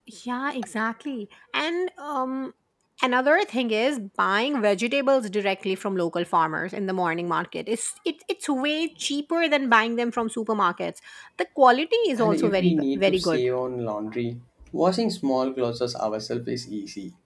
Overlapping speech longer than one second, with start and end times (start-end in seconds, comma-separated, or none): 12.2-13.5